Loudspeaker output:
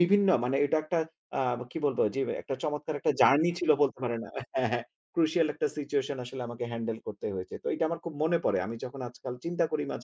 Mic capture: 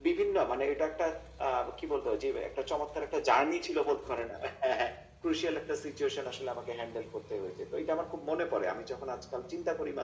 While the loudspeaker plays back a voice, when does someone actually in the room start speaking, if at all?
none

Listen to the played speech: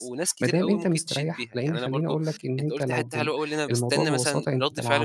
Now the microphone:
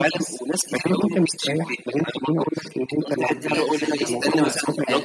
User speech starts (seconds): 3.3 s

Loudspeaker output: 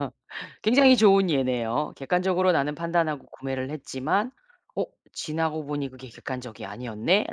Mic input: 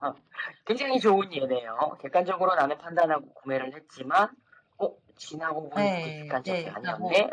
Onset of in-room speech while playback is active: 5.8 s

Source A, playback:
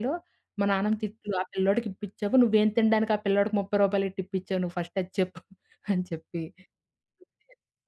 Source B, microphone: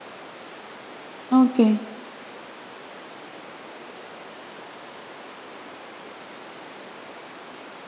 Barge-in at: 1.4 s

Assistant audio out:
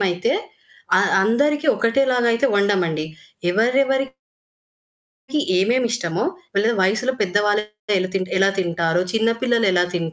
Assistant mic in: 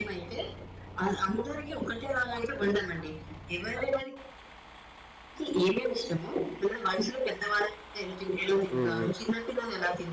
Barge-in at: 8.7 s

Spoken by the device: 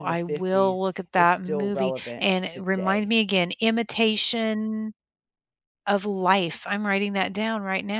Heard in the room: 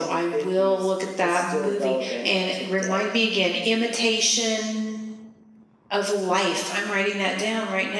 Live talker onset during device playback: none

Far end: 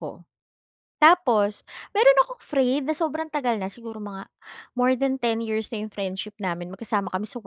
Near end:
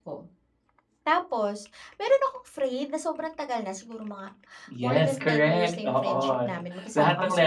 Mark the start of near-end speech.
4.7 s

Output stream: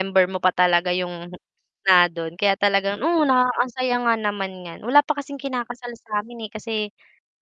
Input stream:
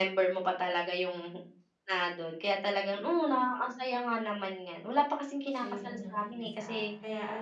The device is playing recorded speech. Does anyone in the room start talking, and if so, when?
5.5 s

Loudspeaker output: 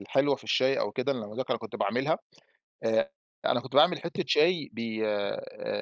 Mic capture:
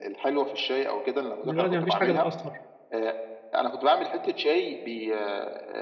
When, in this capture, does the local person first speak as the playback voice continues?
1.4 s

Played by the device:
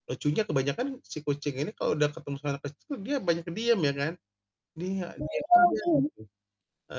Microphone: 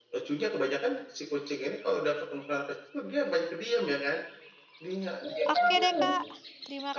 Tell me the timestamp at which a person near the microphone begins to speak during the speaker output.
5.5 s

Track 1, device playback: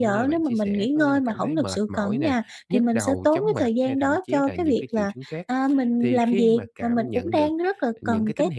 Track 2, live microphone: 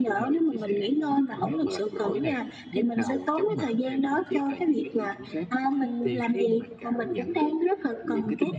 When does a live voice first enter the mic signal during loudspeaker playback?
none

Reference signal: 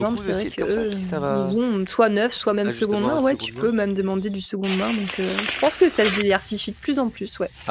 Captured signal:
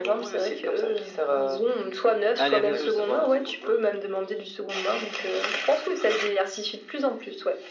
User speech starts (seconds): 2.4 s

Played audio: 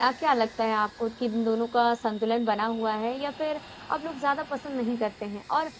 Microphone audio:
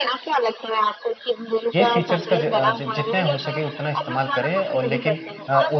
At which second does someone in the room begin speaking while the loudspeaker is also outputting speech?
1.8 s

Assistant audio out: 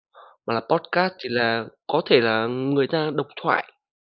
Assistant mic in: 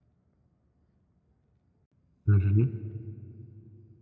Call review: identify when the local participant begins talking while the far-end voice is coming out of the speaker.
2.2 s

